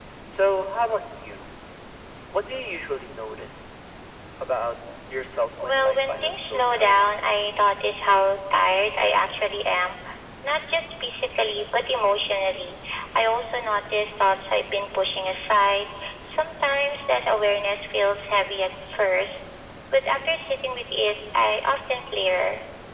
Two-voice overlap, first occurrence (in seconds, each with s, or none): 5.6 s